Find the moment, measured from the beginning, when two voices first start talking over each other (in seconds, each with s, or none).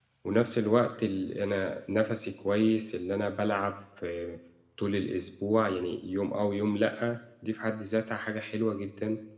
none